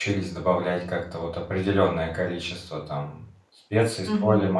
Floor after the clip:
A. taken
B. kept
B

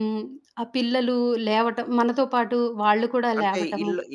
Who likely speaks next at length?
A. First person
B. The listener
B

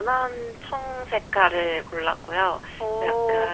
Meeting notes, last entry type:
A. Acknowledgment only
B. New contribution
A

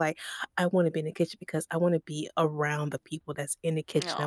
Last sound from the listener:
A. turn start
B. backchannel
B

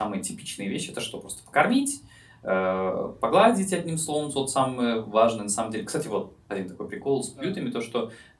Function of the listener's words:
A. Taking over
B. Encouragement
B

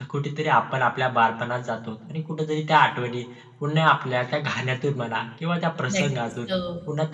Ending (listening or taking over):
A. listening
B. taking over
A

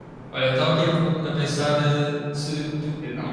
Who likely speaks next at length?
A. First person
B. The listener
A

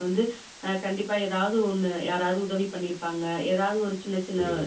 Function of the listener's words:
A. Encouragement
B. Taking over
A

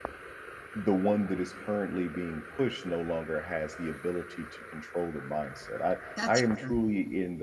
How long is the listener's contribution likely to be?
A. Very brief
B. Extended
A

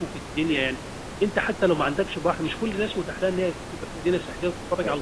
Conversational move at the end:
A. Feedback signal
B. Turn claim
A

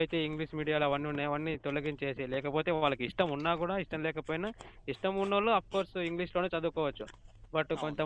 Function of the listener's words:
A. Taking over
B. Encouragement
B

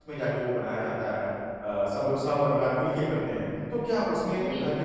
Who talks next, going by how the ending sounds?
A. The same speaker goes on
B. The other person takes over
A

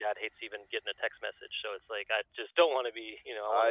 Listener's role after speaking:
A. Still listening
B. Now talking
B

